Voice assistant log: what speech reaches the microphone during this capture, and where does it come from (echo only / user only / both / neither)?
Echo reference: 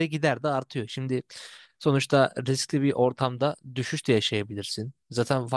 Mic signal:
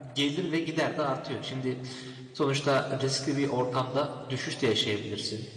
echo only